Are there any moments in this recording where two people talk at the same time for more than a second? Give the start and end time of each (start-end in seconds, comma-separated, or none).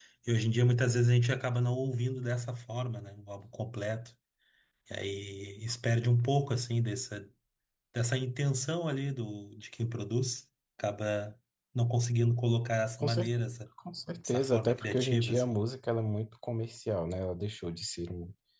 14.3-15.6